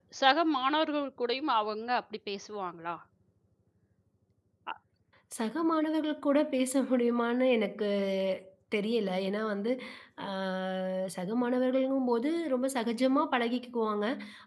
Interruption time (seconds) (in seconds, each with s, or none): none